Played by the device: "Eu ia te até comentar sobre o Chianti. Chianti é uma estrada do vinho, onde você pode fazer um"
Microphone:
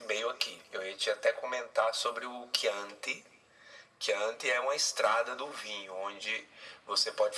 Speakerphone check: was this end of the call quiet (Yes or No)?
Yes